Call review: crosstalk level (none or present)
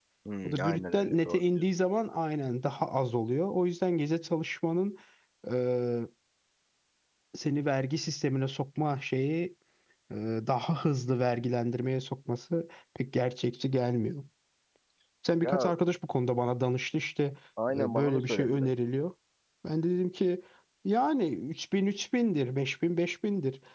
present